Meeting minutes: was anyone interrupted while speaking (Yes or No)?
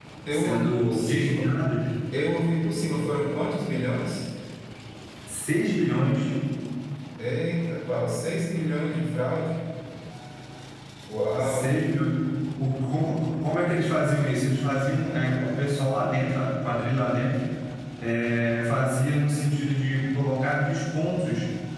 Yes